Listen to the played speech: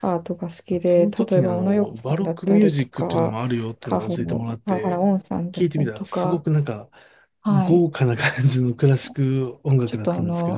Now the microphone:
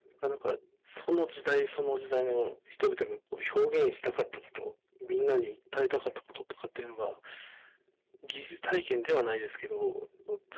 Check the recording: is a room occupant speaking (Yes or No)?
Yes